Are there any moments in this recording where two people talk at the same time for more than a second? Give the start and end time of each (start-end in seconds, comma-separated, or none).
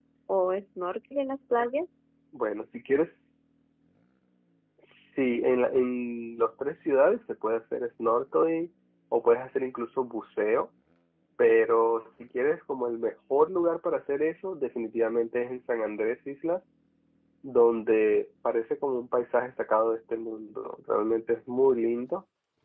none